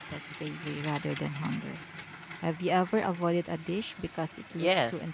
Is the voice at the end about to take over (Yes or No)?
Yes